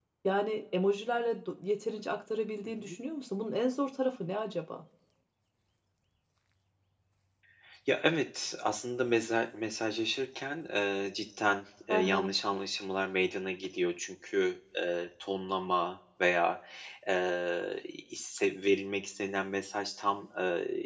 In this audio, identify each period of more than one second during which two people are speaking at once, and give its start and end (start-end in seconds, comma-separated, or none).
none